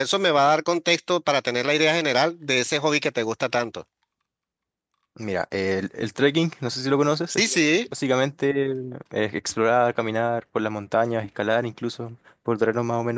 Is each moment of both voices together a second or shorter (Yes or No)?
Yes